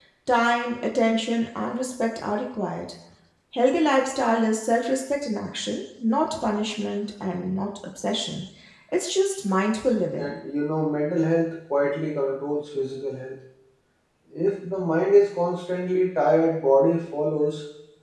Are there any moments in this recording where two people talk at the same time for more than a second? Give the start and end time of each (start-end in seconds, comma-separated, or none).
none